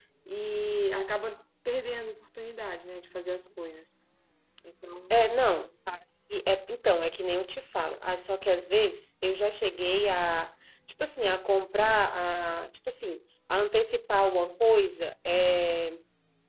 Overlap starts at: none

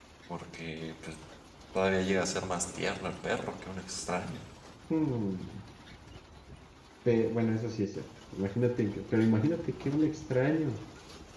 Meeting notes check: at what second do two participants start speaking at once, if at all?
none

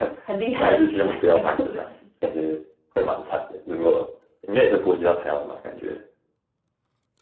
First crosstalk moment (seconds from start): 1 s

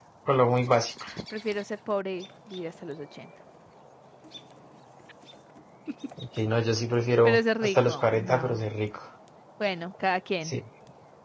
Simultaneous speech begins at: 7 s

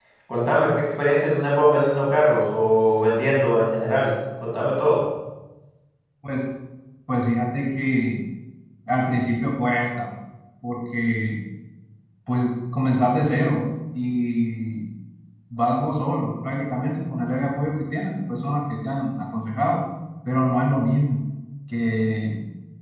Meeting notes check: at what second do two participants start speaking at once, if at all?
none

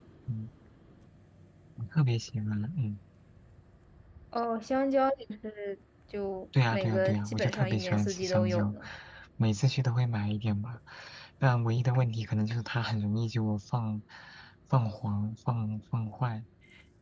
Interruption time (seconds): 7 s

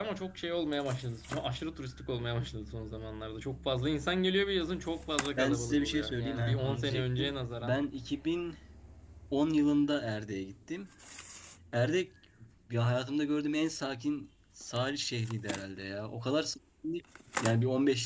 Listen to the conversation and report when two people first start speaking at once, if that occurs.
5 s

